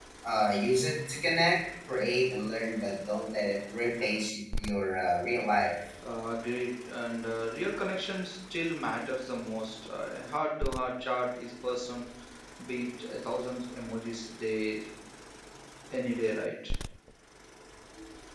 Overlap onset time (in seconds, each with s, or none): none